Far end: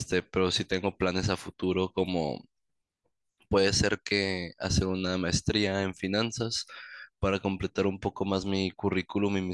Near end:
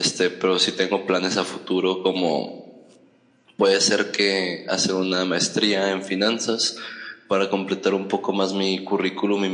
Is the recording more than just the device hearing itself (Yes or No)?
No